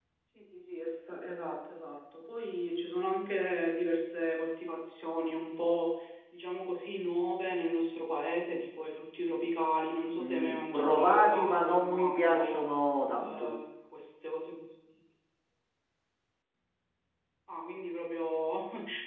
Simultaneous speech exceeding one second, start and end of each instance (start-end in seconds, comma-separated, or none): 10.2-12.6